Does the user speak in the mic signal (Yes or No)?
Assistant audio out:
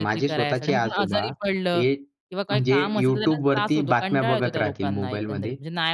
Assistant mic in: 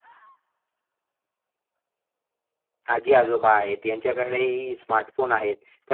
Yes